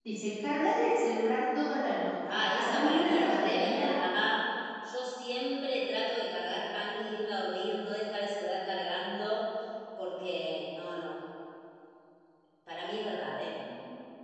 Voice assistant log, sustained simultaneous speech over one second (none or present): present